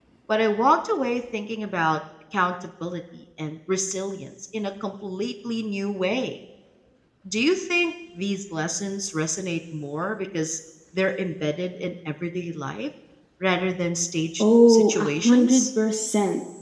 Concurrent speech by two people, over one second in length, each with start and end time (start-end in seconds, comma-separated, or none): 14.4-15.7